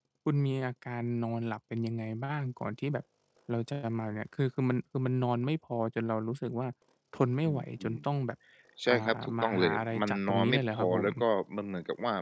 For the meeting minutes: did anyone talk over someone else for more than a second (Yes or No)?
Yes